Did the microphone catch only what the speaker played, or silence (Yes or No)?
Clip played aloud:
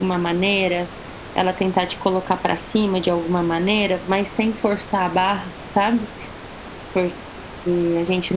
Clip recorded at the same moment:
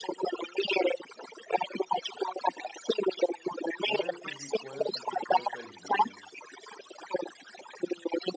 No